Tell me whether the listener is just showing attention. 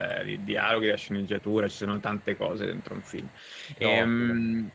Yes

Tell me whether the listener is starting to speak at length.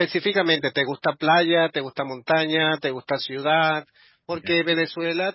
No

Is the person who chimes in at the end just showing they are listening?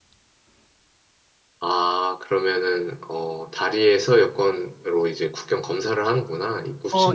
No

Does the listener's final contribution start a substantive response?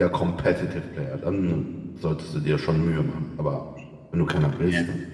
No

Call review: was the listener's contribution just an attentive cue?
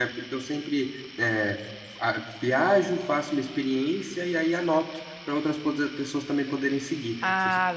No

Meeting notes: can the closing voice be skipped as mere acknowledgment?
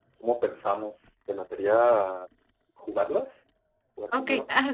No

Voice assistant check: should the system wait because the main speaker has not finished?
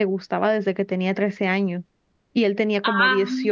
Yes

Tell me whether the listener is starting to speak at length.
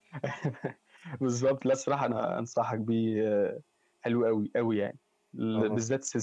No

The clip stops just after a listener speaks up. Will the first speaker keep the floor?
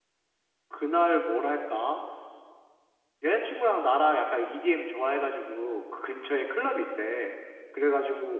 Yes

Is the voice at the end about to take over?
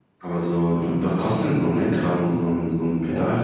Yes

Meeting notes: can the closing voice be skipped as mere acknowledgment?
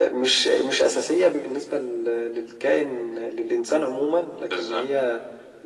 Yes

